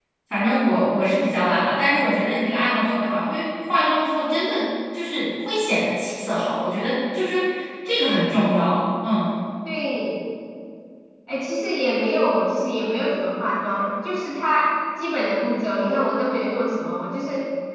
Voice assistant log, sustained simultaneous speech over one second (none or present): none